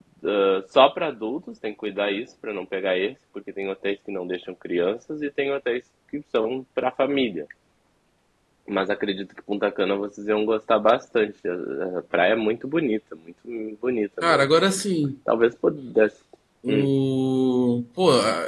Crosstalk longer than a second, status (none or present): none